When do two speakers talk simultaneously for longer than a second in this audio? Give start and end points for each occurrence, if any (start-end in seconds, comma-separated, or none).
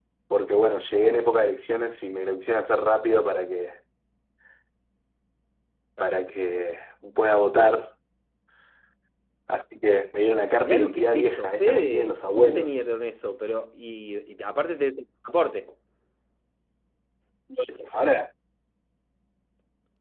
10.6-12.8